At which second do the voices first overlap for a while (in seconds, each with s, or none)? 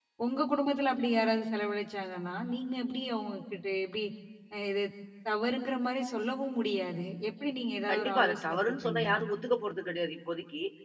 7.9 s